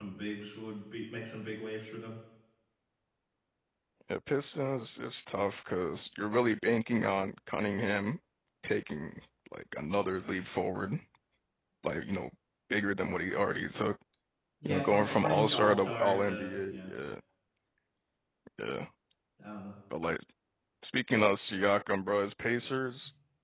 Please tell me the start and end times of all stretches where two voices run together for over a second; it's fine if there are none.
14.6-16.9

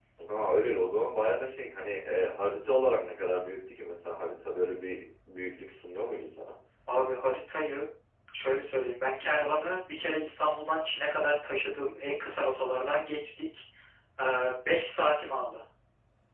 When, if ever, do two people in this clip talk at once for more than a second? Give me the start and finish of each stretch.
none

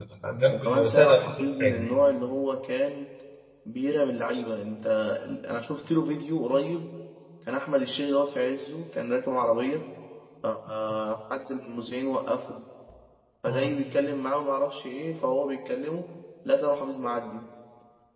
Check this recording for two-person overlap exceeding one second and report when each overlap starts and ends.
0.5-1.9

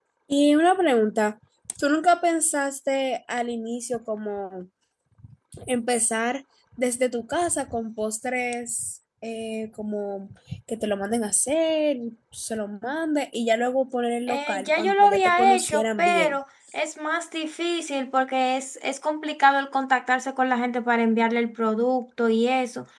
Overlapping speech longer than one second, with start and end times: 14.3-16.4

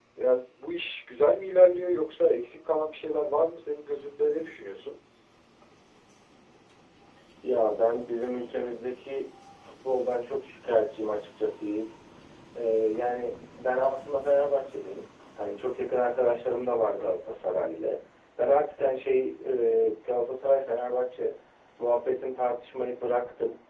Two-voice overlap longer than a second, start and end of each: none

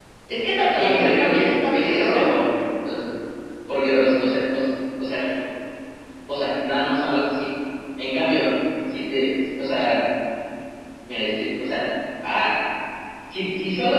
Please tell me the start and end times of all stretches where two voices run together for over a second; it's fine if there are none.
0.7-2.2

